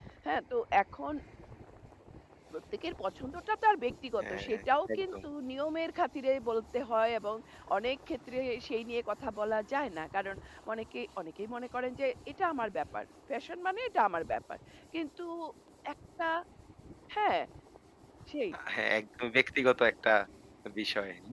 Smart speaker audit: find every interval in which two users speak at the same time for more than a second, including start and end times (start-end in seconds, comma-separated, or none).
none